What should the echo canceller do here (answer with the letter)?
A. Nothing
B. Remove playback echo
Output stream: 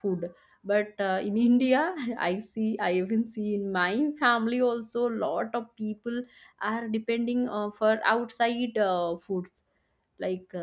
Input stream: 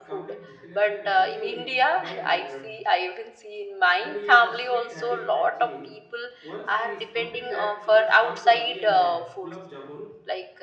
B